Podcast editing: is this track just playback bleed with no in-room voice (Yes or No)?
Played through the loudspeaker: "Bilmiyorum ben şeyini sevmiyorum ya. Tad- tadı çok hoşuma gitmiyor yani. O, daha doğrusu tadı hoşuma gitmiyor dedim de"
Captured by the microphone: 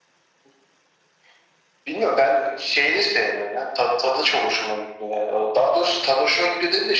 Yes